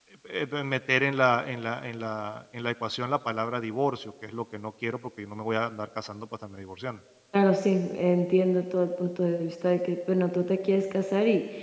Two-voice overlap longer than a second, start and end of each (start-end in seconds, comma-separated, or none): none